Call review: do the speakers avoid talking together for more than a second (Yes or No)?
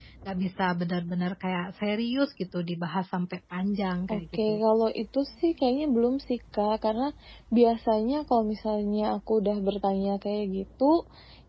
Yes